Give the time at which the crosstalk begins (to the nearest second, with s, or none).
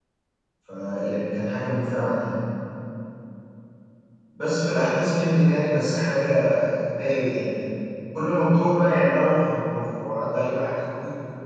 none